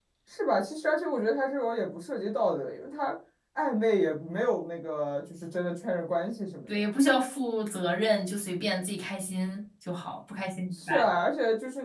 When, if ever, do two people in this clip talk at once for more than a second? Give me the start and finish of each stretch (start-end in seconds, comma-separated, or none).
none